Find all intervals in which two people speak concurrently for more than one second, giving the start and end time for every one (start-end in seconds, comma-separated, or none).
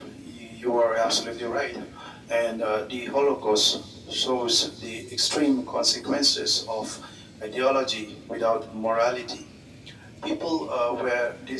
none